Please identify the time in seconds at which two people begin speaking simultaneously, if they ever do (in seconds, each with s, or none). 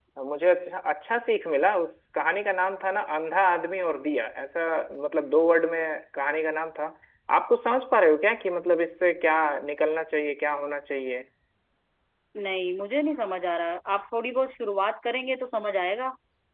none